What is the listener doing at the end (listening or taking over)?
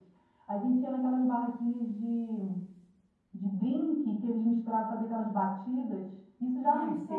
listening